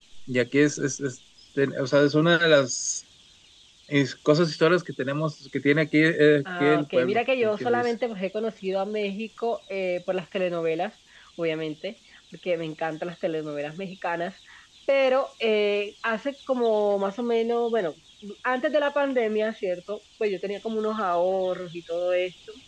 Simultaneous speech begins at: 6.5 s

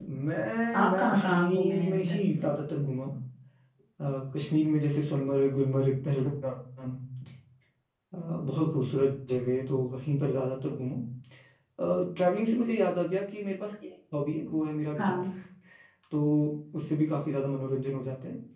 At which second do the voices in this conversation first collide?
0.8 s

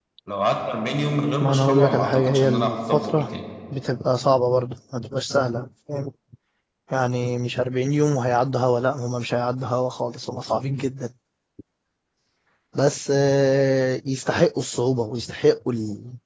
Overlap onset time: 1.4 s

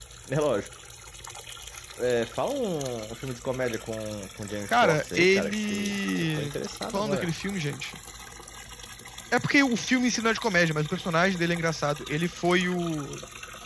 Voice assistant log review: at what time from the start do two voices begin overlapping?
4.7 s

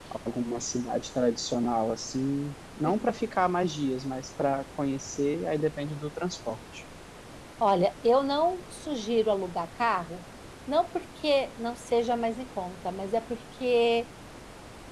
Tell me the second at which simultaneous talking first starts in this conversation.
none

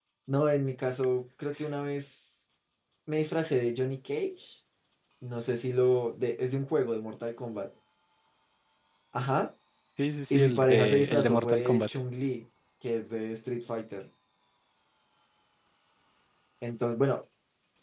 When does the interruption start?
10.3 s

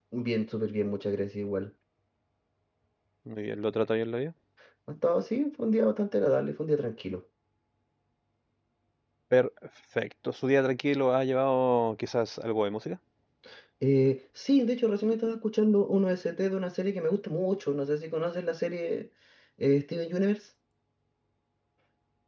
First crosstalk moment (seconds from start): none

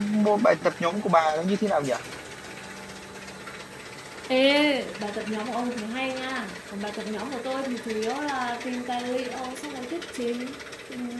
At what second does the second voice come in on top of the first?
none

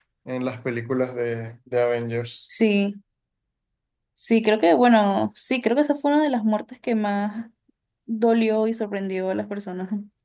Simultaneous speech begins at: none

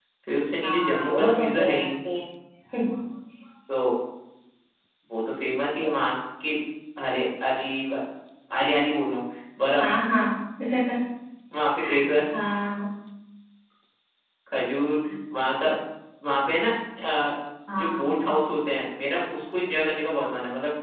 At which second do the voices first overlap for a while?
0.6 s

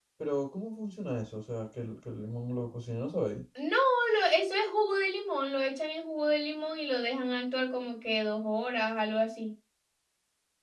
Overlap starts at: none

